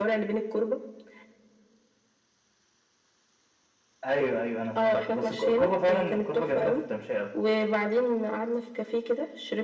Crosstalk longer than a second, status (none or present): present